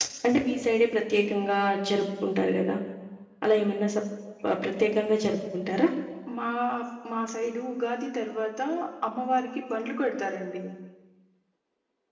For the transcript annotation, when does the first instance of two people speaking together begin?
none

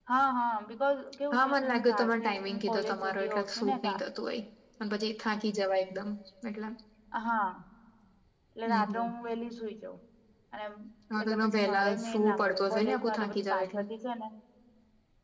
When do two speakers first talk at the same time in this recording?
1 s

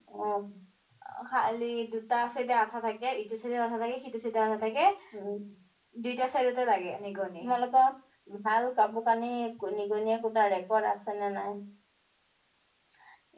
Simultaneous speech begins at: none

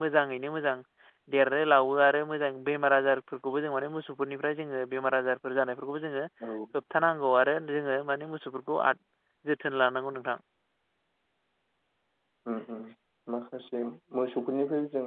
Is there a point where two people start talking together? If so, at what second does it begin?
none

